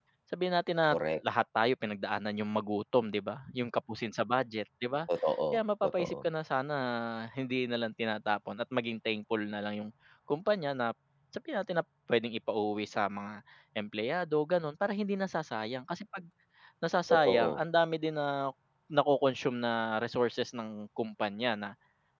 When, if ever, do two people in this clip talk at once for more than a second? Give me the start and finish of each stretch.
none

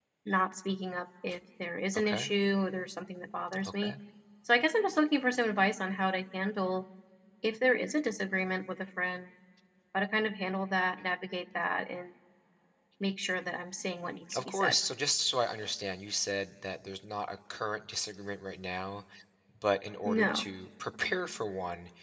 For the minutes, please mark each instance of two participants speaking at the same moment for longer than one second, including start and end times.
none

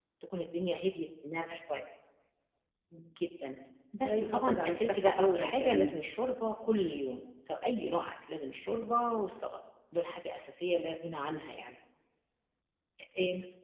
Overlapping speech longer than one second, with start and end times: 4.0-5.9

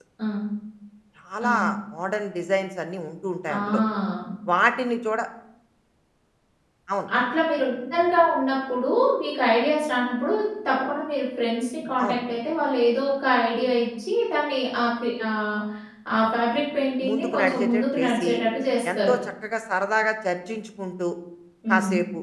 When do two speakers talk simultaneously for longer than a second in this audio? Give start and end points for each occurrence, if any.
17.1-18.3

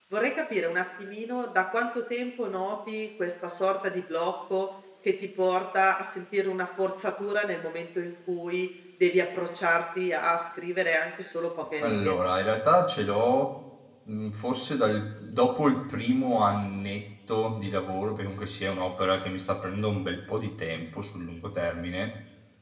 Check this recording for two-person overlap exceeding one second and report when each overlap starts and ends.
none

